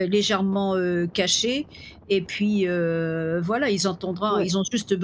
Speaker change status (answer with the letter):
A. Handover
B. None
B